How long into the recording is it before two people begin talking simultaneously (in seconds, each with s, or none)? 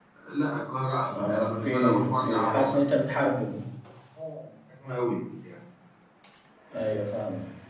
1.0 s